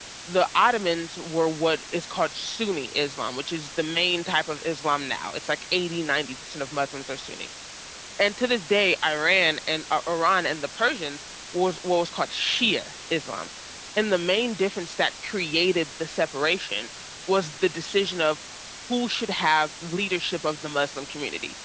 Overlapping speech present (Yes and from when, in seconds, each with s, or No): No